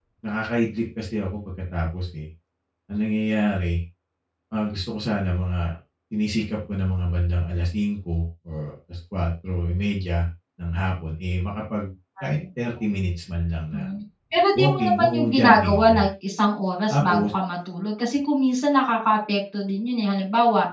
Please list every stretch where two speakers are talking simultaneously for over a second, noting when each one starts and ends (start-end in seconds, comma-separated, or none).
14.6-16.0